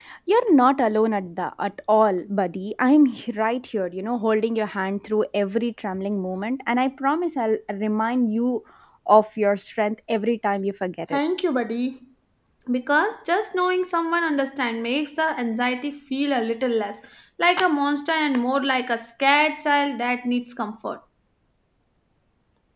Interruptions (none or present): none